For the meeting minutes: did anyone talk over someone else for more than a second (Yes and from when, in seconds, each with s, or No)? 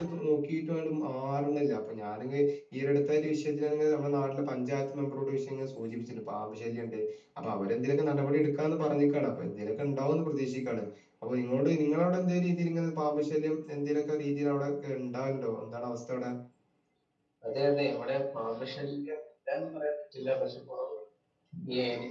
No